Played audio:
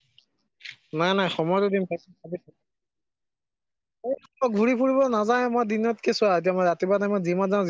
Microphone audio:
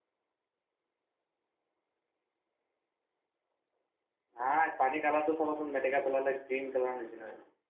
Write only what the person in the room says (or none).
নাই। পানী কালাৰটো চাবাচোন মেটেকা পেলালে গ্ৰীণ কালাৰ নিচিনা হয়।